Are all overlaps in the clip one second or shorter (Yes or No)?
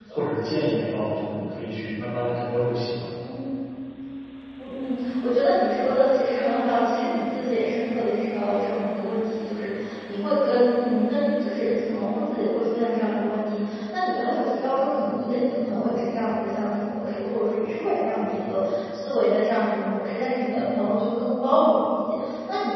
Yes